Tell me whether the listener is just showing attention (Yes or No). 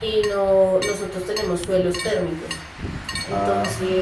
Yes